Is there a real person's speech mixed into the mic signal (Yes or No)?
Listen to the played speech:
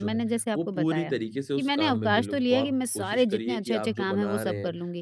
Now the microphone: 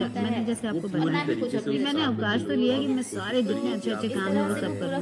Yes